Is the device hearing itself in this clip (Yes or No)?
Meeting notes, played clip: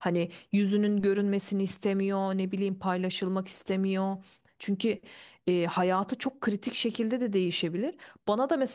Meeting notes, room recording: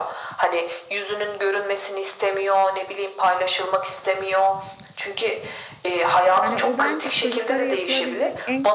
Yes